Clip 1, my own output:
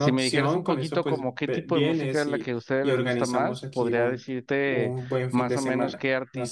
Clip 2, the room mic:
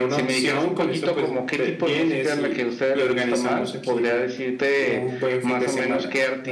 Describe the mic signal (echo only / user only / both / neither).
echo only